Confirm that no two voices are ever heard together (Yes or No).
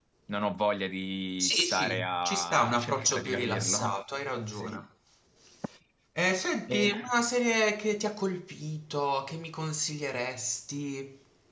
No